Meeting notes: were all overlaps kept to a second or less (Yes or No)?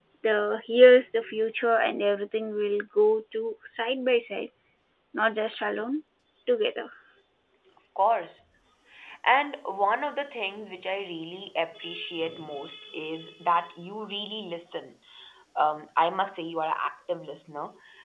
Yes